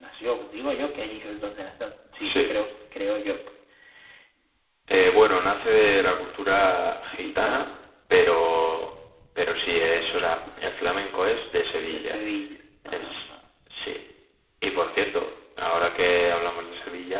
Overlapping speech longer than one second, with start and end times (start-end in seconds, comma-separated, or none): none